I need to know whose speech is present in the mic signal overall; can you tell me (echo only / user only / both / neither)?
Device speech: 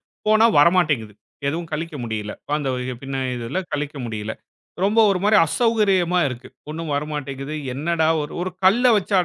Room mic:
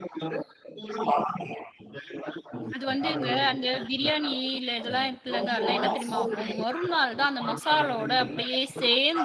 both